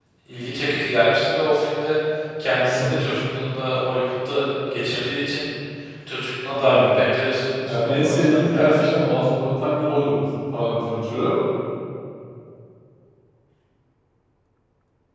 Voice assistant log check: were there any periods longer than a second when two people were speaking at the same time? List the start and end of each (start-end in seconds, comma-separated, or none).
7.6-8.9